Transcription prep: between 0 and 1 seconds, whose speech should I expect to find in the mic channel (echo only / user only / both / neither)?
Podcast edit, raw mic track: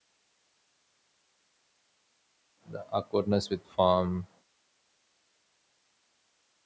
neither